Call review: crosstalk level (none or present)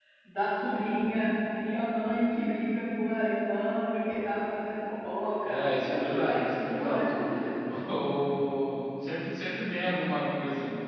present